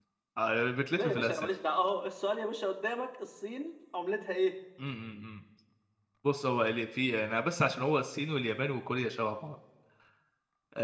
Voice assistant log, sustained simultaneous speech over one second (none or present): none